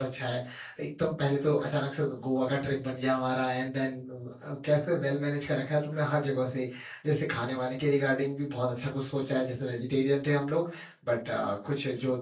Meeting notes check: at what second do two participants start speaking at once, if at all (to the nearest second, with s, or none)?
none